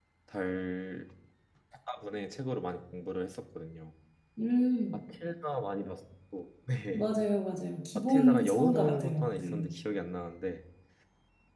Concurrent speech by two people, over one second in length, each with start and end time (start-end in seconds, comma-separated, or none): 8.1-9.7